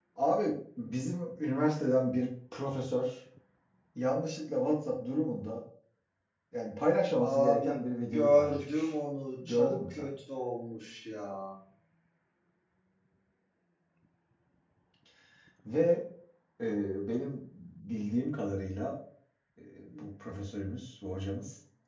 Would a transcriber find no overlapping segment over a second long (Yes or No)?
No